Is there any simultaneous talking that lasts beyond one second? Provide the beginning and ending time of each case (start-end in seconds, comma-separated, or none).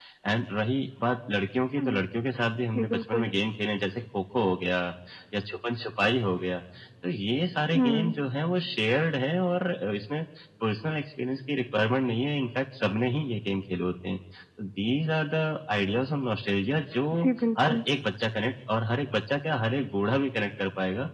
none